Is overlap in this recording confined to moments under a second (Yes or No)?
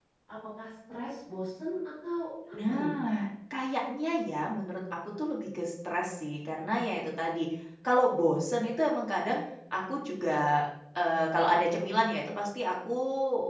Yes